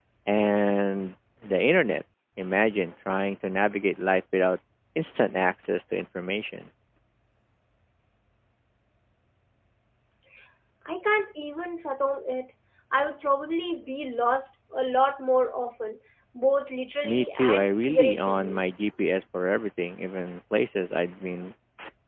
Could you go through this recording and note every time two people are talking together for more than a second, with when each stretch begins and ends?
17.0-18.6

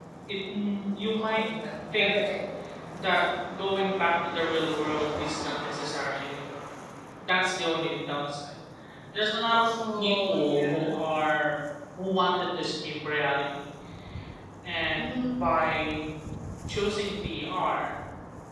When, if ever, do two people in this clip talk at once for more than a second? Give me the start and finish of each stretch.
9.6-11.0

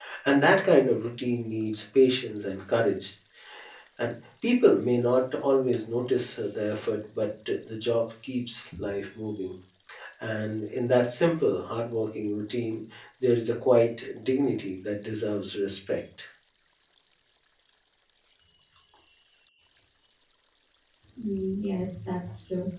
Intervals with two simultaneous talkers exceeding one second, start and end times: none

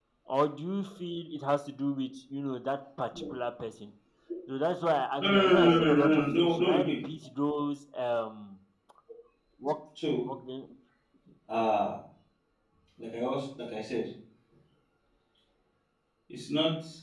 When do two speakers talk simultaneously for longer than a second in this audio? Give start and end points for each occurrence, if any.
5.2-6.9

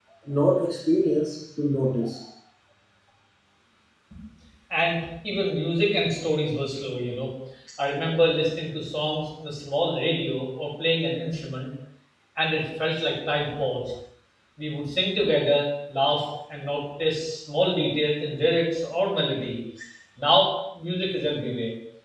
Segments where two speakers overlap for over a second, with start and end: none

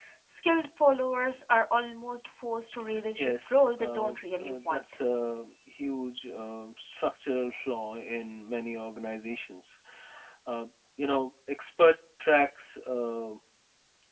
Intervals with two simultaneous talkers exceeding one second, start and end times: 3.2-4.8

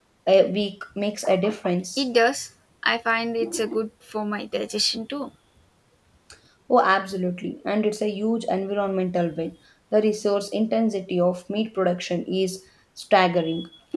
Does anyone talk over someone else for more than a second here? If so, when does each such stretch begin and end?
none

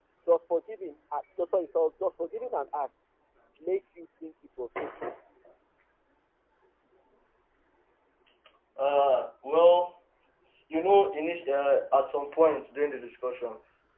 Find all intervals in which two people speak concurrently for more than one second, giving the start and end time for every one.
none

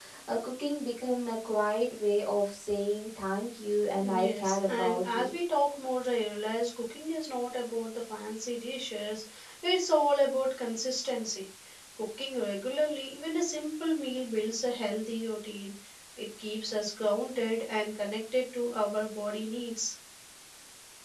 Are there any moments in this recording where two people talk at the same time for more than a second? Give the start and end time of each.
4.0-5.3

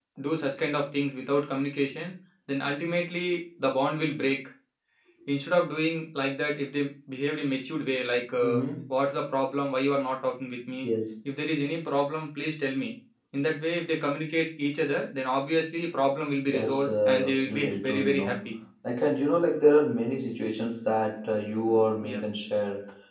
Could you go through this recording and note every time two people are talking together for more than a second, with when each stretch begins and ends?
16.5-18.5

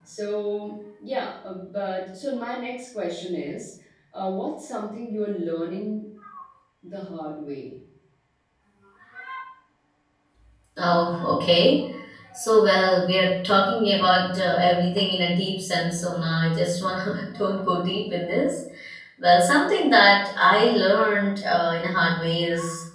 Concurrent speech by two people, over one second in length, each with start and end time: none

